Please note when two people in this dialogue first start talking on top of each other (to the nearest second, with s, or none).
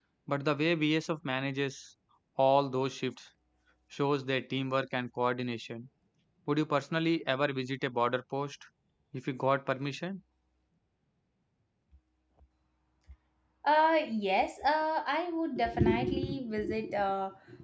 none